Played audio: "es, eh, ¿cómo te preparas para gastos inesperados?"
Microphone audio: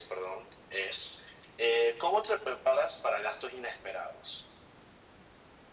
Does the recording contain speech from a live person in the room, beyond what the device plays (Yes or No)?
No